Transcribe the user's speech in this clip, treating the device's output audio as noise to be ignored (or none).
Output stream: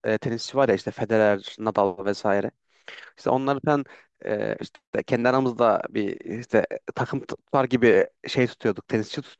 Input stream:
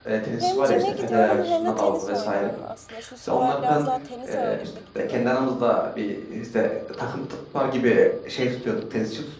Hem cime gidiyorum hem de tenis oynuyorum aslında. Şu sıralar biraz daha tenis ağırlıklı gidiyorum.